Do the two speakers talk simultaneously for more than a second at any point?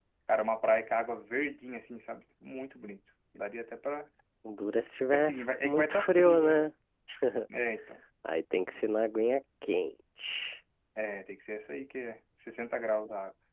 Yes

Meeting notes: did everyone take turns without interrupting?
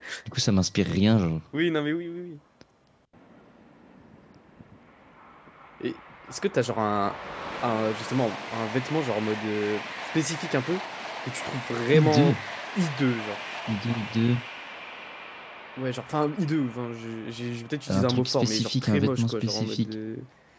No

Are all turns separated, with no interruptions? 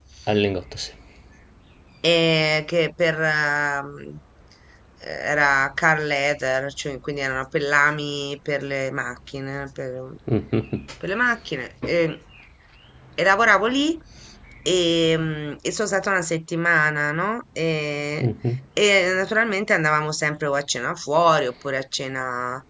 Yes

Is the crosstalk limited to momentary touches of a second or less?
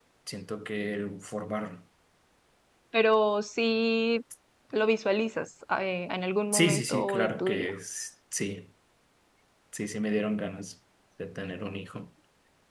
No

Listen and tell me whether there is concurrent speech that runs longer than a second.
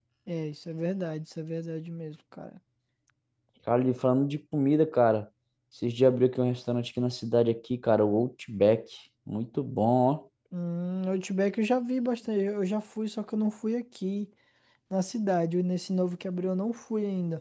No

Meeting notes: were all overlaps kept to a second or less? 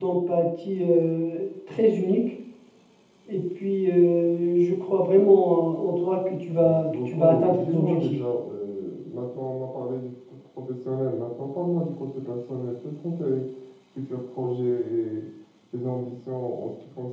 No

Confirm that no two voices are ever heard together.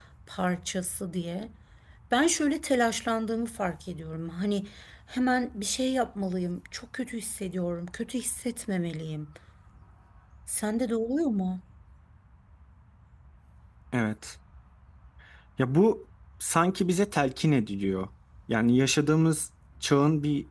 Yes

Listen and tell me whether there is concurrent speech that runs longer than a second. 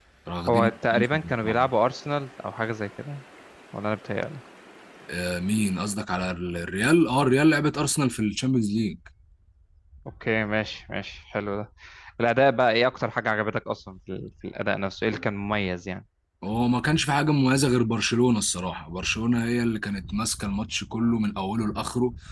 Yes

